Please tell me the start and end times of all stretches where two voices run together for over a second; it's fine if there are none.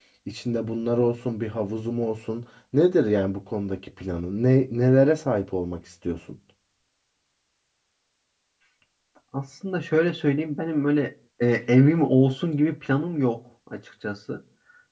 none

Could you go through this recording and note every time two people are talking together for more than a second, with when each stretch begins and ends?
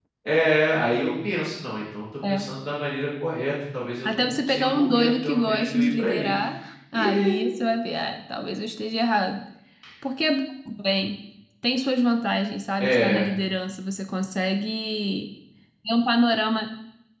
4.0-6.3

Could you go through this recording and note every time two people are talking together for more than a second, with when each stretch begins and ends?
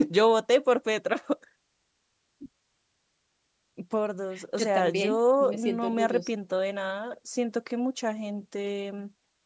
4.6-6.3

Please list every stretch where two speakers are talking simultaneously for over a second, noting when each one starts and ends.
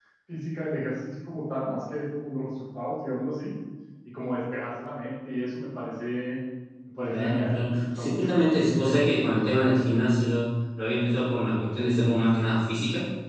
7.1-8.3

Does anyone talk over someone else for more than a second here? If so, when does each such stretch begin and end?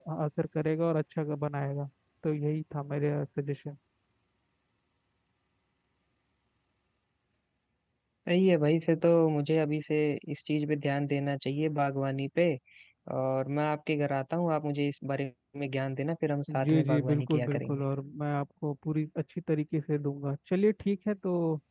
16.5-17.8

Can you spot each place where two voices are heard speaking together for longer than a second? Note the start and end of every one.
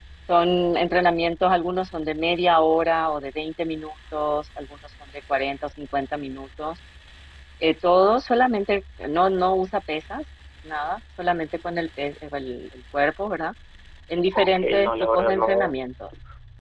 14.3-15.8

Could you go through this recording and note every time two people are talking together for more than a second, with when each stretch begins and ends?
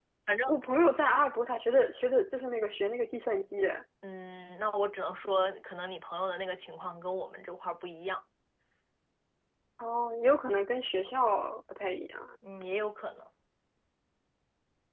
none

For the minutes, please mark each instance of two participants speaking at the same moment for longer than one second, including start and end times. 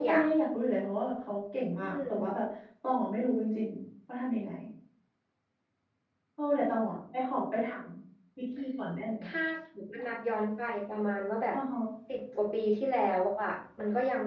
none

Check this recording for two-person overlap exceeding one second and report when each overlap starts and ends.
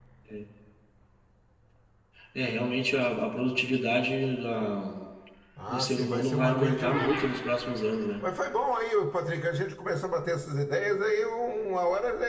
5.7-7.3

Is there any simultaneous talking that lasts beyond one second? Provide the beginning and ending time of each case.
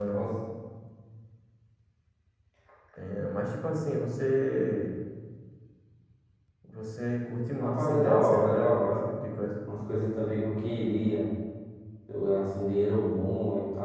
7.6-9.0

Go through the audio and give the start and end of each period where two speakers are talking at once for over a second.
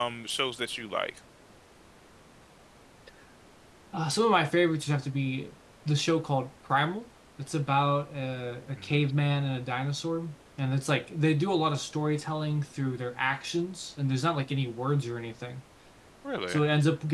none

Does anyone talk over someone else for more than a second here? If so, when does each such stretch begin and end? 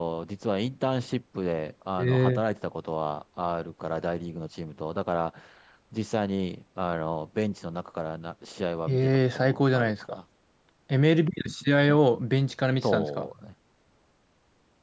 8.9-10.2

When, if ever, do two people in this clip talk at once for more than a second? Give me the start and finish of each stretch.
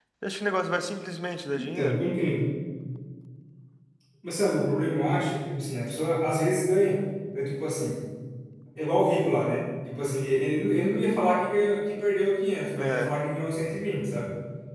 none

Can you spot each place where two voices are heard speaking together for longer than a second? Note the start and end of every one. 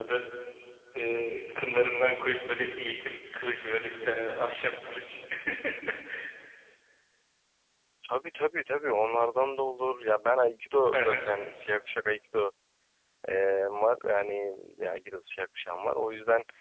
none

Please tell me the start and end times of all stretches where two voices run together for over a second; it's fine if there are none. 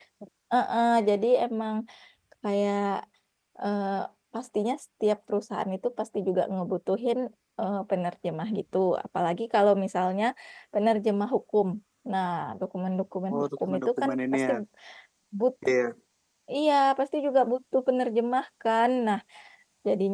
13.3-14.5

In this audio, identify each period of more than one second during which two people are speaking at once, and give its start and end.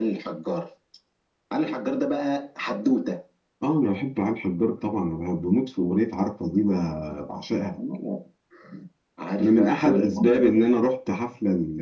9.4-10.6

